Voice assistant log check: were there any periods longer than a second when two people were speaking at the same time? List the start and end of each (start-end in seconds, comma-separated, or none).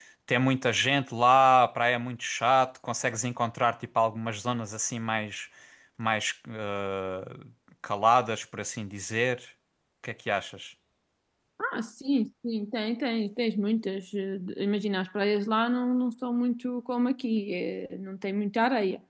none